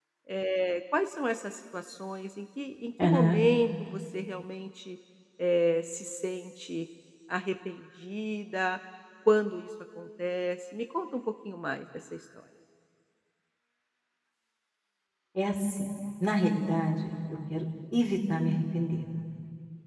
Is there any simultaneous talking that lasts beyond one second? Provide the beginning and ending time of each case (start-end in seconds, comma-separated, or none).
none